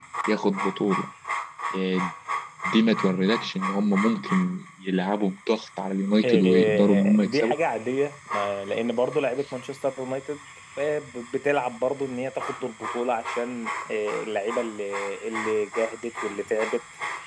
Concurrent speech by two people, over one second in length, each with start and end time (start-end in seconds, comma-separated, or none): 6.2-7.6